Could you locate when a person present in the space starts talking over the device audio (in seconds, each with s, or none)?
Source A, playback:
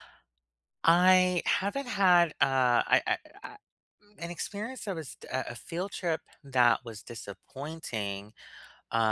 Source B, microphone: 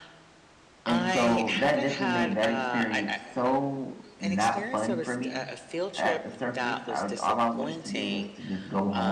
0.9 s